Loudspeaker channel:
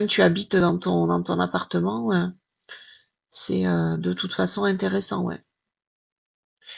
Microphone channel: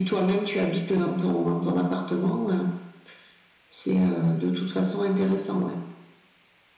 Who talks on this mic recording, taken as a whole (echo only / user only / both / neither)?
echo only